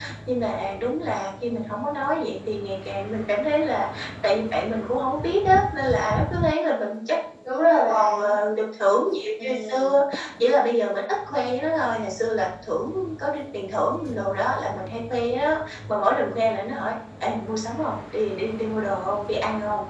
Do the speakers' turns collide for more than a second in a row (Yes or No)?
No